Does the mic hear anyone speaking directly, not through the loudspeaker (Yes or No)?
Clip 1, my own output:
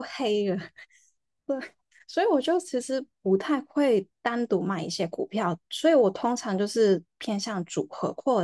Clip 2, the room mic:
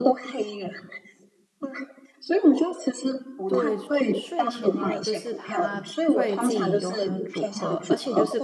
Yes